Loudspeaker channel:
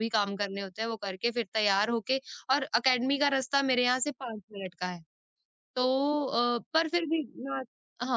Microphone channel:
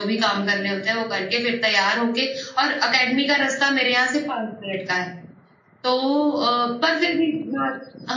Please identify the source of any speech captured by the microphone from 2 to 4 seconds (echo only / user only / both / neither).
echo only